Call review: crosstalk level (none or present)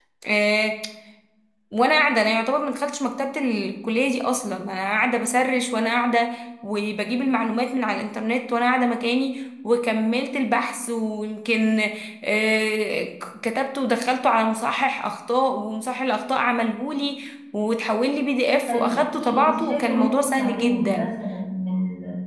present